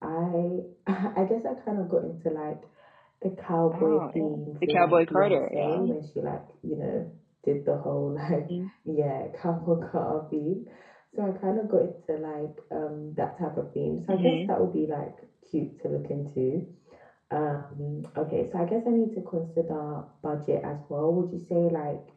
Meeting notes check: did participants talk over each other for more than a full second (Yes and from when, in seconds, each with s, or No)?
Yes, from 3.7 s